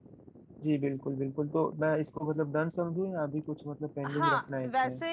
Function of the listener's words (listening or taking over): taking over